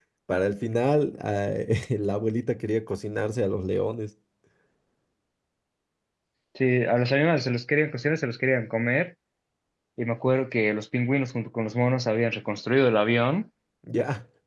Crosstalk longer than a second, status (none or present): none